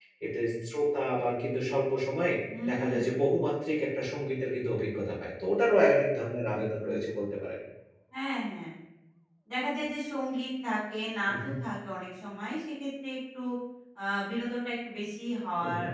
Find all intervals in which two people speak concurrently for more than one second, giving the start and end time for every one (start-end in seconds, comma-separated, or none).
none